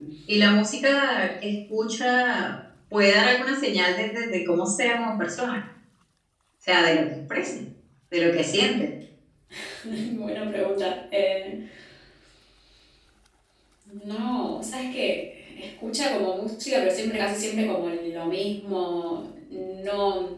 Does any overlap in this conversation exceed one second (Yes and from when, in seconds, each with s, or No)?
No